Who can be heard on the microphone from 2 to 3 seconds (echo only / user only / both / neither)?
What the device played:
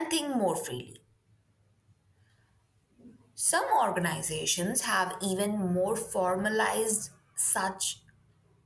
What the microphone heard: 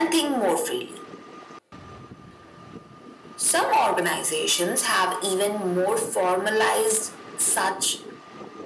neither